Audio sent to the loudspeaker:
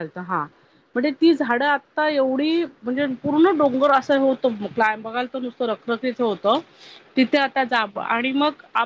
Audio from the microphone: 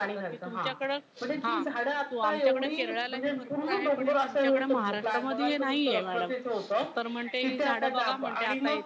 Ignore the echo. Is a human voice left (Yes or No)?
Yes